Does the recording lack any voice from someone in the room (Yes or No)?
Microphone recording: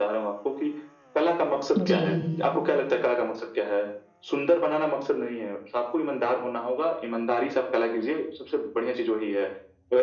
No